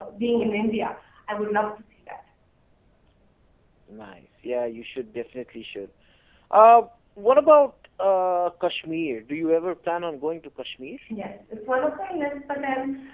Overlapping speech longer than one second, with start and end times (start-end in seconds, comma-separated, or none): none